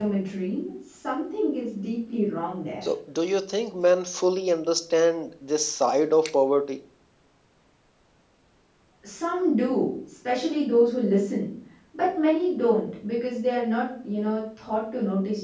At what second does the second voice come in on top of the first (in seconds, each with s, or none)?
none